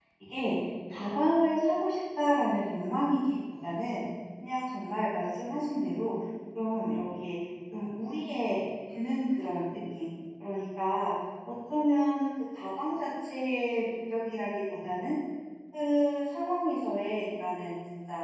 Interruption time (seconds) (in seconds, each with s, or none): none